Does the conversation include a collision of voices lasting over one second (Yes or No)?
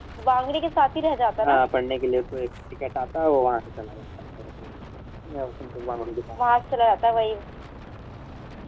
No